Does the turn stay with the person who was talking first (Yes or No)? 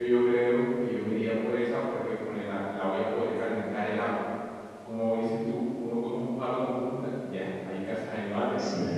No